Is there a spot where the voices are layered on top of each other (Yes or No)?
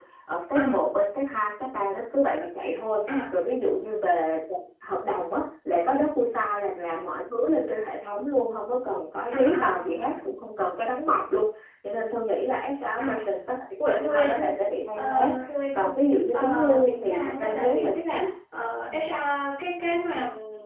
Yes